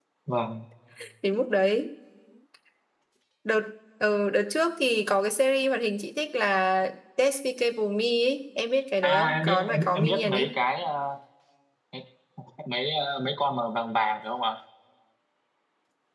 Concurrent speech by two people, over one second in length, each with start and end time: 9.0-10.5

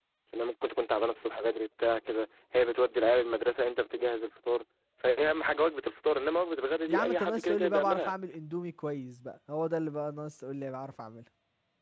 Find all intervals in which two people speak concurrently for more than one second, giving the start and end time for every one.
6.9-8.1

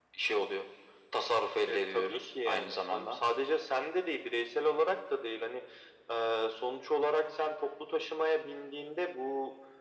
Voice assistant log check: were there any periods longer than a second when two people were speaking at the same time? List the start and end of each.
1.7-3.2

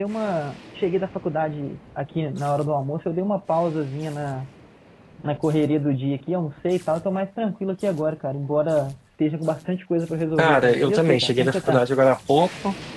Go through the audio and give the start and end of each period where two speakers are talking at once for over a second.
10.4-11.8

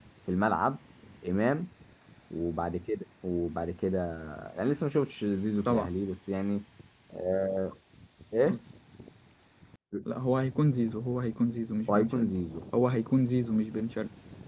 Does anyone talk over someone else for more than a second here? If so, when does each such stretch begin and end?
none

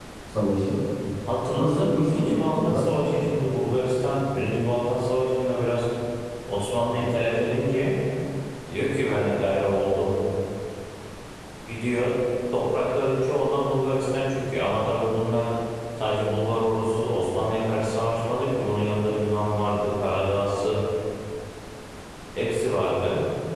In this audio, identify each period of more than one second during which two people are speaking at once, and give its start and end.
1.6-2.9

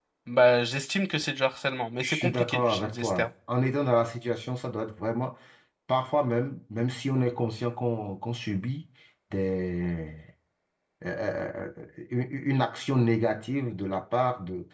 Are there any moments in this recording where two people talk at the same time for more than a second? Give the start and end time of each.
2.0-3.3

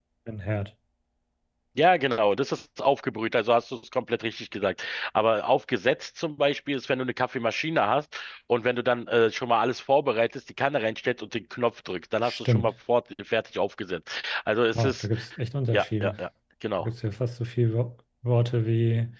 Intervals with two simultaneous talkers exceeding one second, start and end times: none

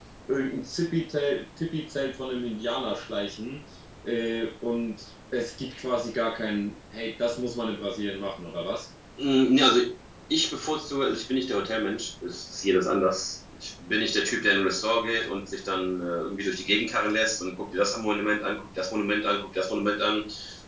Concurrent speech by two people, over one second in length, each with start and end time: none

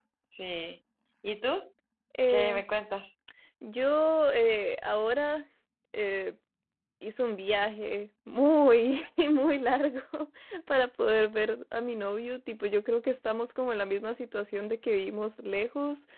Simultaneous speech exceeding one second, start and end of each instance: none

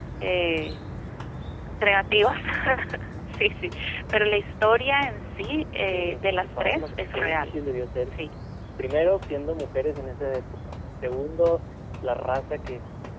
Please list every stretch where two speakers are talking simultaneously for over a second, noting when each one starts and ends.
5.9-7.5

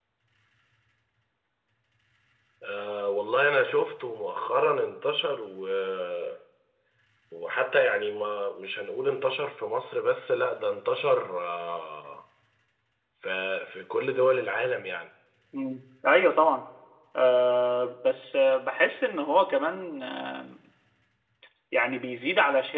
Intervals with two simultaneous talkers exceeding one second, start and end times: none

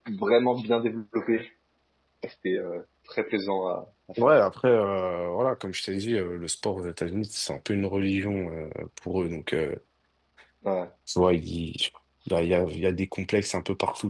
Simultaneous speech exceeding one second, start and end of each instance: none

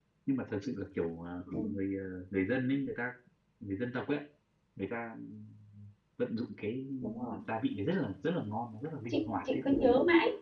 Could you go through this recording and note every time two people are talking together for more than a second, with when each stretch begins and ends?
none

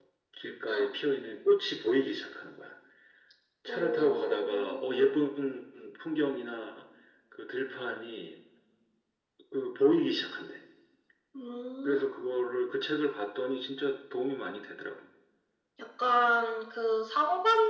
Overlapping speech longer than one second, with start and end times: 3.7-5.2

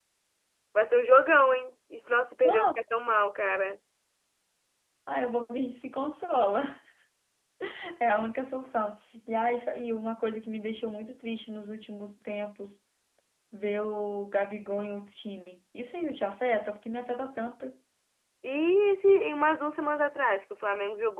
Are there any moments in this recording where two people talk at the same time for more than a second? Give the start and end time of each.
none

